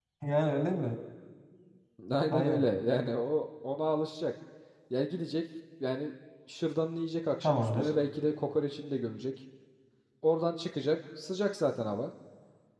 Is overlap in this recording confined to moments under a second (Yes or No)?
Yes